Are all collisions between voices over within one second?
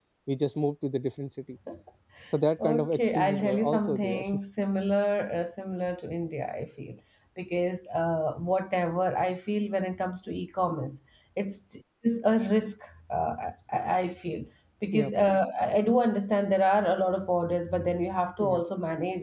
No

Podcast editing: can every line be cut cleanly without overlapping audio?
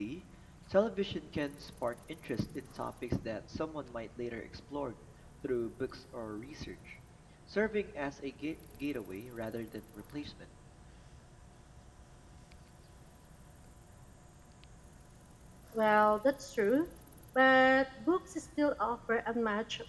Yes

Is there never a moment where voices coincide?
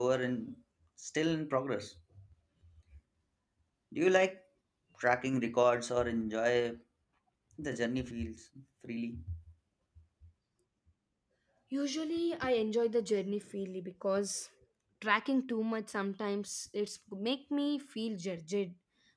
Yes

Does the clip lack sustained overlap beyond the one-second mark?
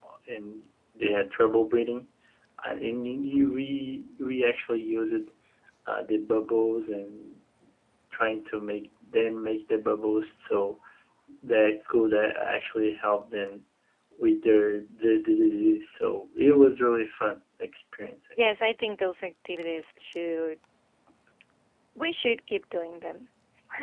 Yes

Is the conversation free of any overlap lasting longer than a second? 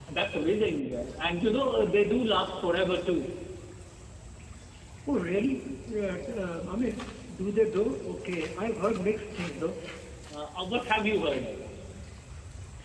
Yes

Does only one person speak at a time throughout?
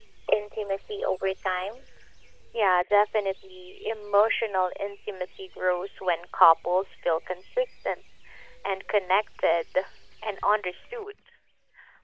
Yes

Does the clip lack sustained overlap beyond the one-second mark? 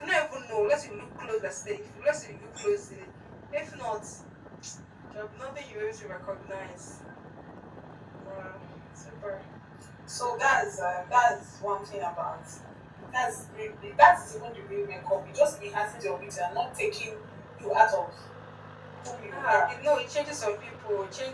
Yes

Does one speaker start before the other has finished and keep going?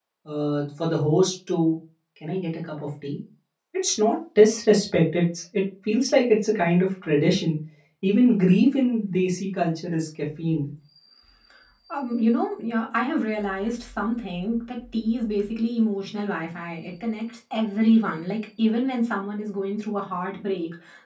No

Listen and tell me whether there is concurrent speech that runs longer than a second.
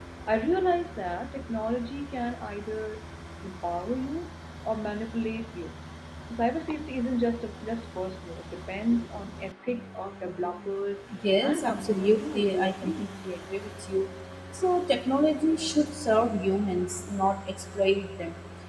Yes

